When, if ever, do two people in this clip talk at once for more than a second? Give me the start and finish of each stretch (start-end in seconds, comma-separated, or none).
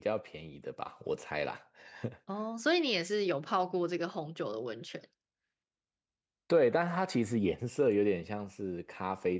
none